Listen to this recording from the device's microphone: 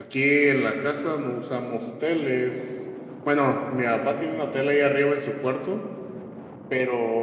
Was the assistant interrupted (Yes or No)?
Yes